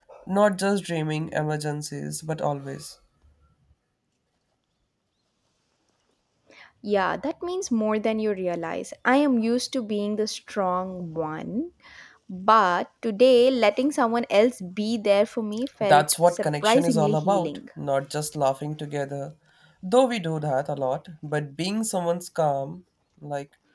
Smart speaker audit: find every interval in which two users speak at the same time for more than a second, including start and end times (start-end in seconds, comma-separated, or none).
15.8-17.6